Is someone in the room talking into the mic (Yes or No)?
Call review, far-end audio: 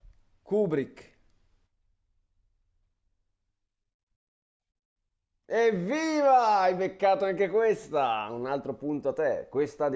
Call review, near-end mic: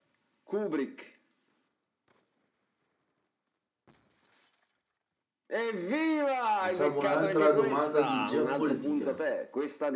Yes